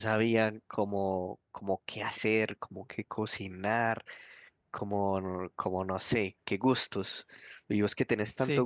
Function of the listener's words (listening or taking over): listening